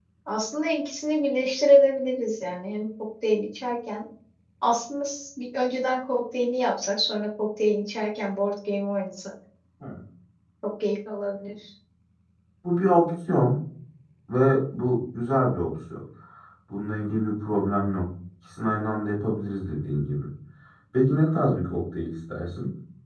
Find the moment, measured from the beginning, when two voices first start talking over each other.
none

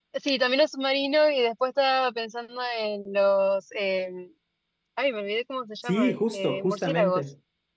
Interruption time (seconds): 5.8 s

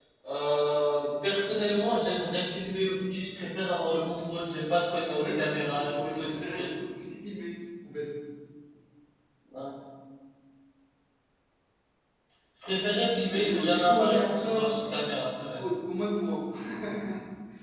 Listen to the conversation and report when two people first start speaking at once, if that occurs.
5.1 s

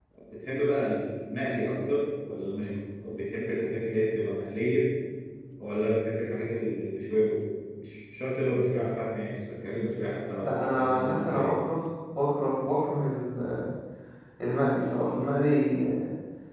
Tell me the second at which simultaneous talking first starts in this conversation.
10.4 s

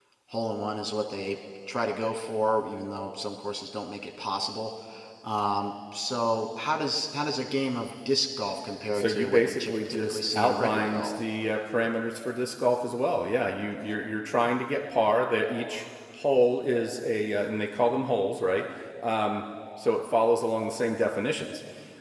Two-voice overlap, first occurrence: 8.9 s

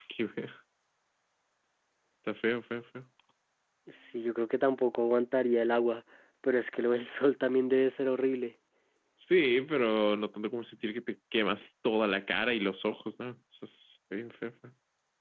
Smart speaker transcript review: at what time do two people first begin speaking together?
none

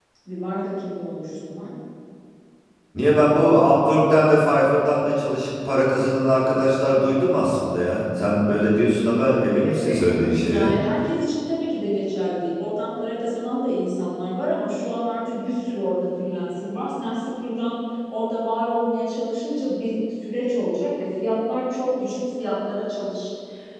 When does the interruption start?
9.5 s

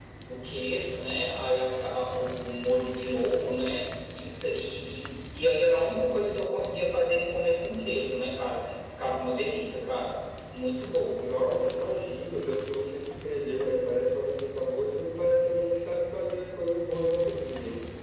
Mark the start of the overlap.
none

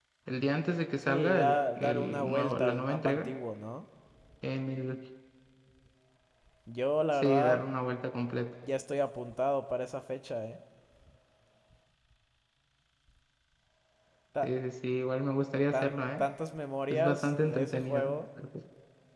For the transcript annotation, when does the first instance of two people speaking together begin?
1.0 s

